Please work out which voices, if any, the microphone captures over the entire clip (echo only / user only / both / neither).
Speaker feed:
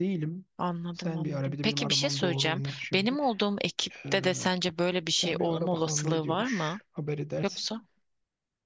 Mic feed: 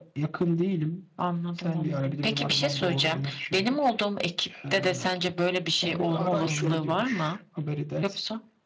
both